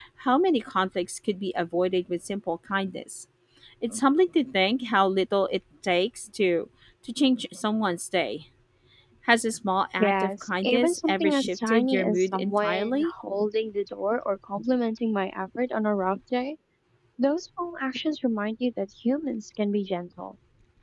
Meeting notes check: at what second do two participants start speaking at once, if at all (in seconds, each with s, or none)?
10.0 s